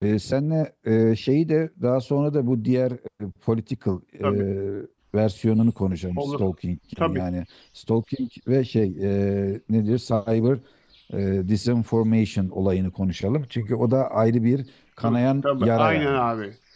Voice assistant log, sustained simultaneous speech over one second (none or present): present